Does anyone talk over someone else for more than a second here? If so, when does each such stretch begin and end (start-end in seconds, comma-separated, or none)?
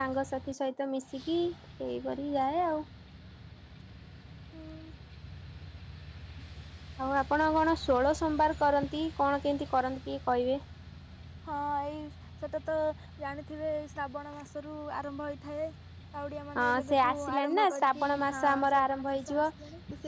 16.6-19.4